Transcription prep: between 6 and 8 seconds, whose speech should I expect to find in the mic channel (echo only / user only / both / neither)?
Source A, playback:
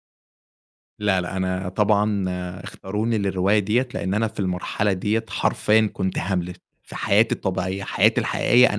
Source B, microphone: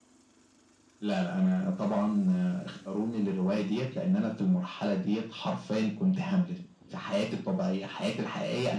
echo only